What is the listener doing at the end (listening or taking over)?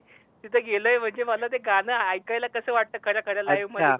taking over